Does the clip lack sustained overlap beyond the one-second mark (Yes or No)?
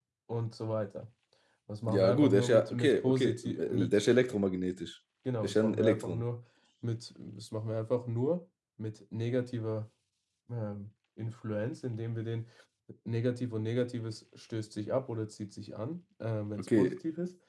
No